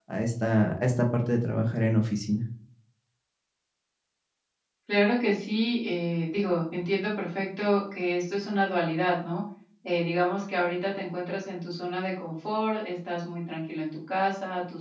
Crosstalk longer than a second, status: none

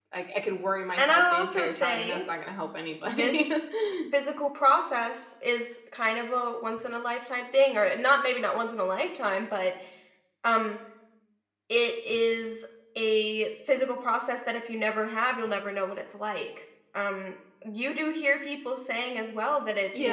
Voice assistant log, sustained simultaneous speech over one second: present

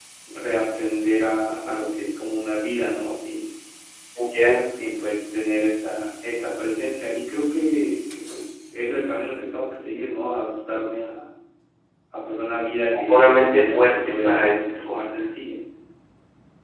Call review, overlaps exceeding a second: present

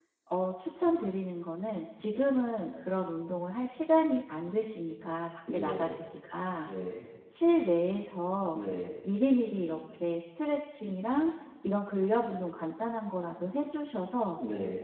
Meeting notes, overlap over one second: none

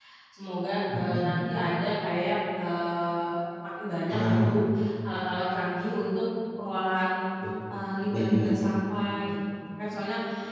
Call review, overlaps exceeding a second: none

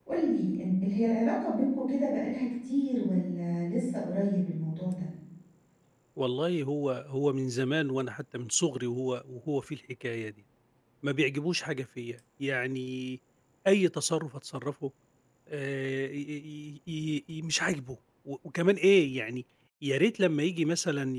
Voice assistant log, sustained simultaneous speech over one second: none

